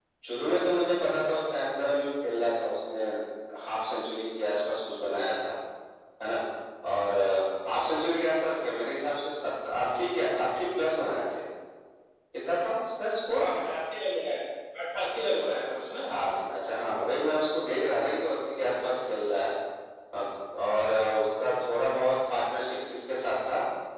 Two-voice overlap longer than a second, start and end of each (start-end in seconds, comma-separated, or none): none